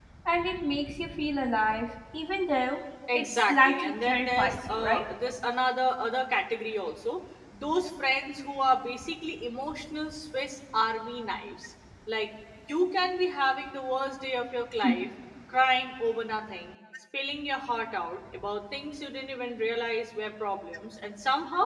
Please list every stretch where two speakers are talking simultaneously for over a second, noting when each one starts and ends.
3.1-5.1

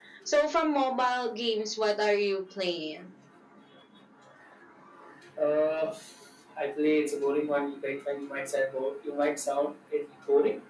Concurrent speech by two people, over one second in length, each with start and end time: none

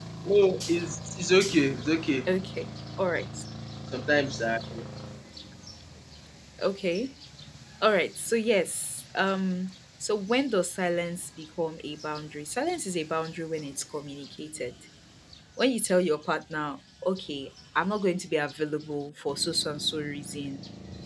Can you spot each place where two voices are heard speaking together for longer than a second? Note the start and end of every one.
none

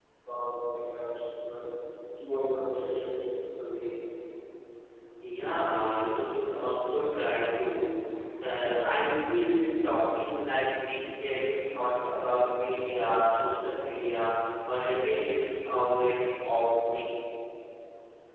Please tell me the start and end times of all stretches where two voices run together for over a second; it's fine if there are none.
none

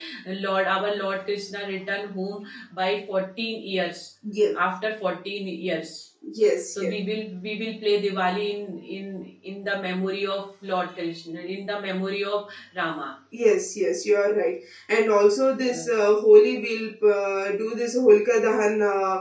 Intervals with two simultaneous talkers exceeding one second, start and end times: none

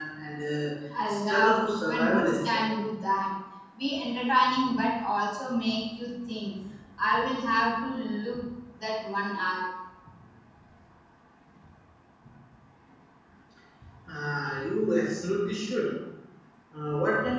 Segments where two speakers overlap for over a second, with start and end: 1.1-2.6

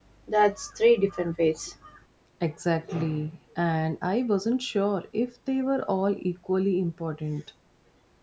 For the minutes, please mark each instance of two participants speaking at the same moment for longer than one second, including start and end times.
none

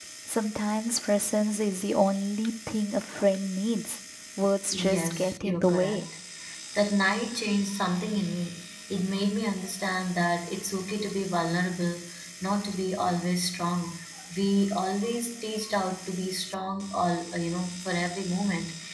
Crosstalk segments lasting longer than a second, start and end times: 4.7-6.1

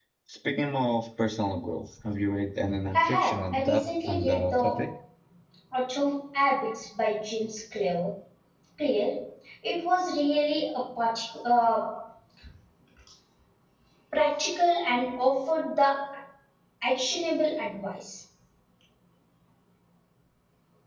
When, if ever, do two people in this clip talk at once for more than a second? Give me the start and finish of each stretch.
3.0-4.9

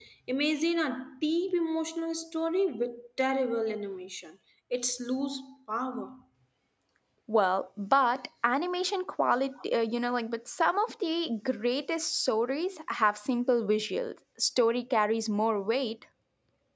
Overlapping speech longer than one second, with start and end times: none

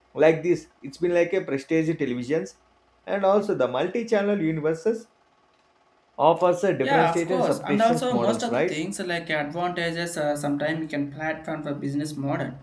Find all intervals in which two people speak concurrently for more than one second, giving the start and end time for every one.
6.8-8.8

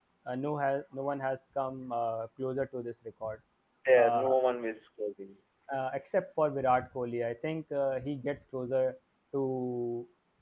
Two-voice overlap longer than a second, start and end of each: none

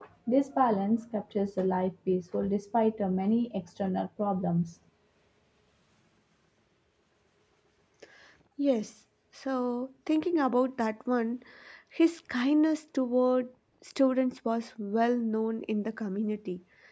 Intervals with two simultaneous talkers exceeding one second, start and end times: none

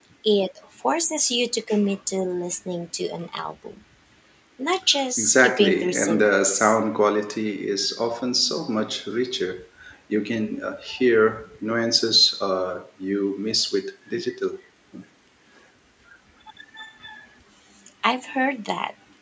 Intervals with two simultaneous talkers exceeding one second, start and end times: 5.2-6.8

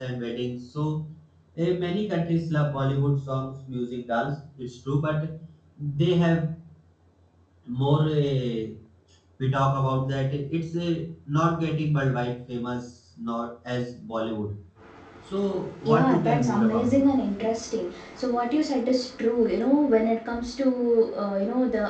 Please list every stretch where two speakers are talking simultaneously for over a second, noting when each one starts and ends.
15.8-17.1

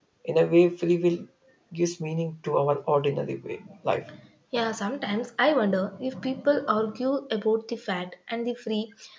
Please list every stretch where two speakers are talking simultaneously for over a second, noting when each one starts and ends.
none

